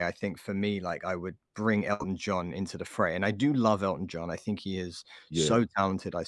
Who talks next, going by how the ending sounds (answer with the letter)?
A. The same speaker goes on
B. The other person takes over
A